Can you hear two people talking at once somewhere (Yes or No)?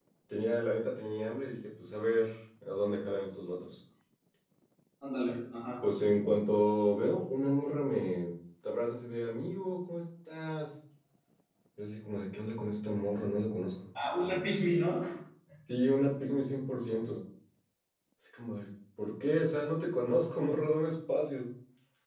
No